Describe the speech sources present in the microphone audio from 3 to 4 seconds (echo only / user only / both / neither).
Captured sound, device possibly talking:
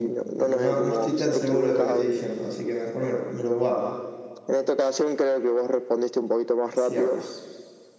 user only